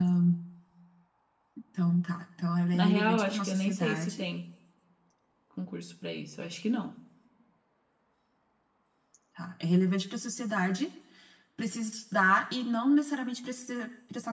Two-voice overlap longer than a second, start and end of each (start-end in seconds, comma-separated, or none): 2.7-4.2